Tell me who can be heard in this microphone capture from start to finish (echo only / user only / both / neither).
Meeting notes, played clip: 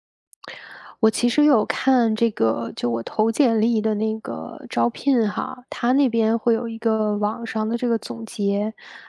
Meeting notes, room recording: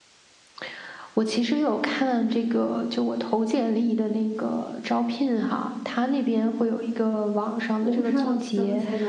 both